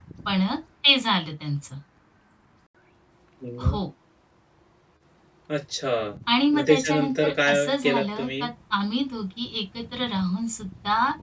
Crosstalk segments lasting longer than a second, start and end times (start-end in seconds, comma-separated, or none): 6.5-8.5